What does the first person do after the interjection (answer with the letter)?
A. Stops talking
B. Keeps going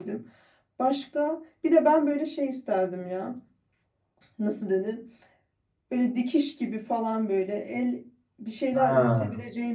B